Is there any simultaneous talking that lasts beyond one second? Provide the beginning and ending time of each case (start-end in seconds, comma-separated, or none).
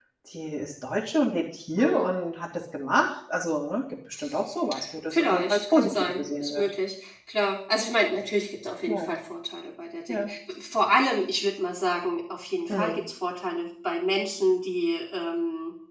5.1-6.6